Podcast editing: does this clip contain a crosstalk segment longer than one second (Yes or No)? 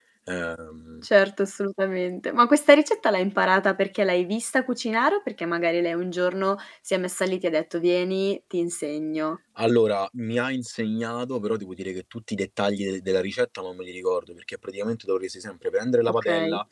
No